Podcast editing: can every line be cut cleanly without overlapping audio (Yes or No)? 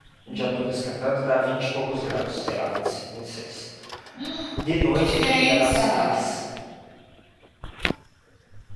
No